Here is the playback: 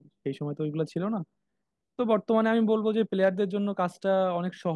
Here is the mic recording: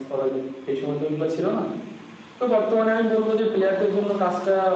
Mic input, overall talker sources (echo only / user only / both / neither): echo only